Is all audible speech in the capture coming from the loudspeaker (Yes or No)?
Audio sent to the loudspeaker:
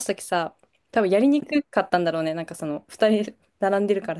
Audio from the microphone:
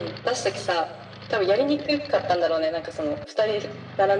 Yes